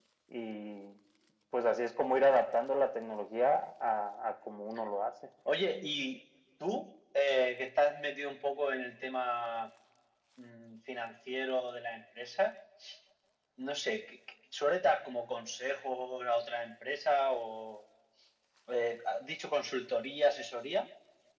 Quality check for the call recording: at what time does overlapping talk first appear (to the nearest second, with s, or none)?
none